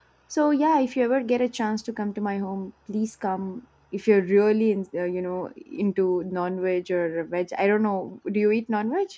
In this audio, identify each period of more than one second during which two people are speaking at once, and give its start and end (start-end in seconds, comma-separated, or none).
none